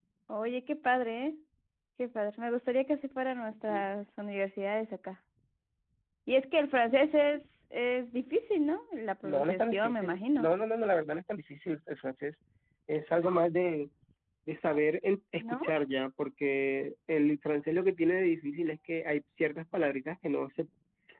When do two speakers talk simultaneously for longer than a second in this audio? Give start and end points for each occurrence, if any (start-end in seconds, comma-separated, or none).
9.2-10.5